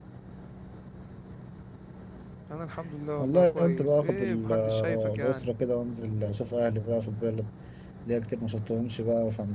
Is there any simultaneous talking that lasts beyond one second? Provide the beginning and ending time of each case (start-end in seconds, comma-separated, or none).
3.2-5.5